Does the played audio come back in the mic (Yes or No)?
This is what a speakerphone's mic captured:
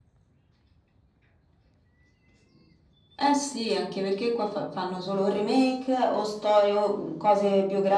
Yes